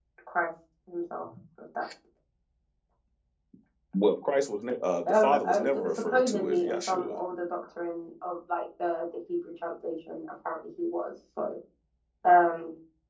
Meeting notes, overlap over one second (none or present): present